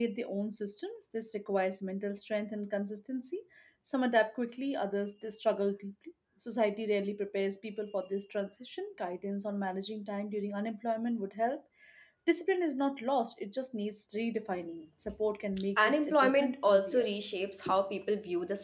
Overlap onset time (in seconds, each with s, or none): 15.8 s